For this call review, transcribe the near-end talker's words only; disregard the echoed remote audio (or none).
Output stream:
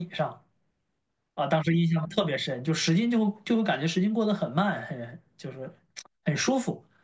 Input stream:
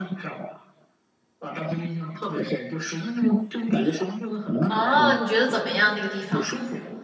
哦，你觉得怎么样那个地方？